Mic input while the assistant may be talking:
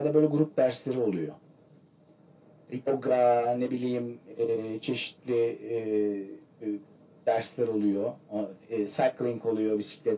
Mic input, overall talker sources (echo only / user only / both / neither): echo only